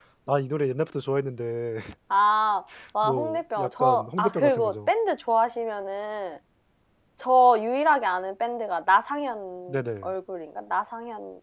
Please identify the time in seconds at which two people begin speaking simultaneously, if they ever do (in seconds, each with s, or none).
3.0 s